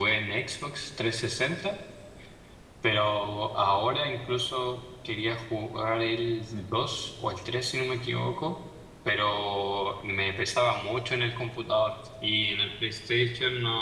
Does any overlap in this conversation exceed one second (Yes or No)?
No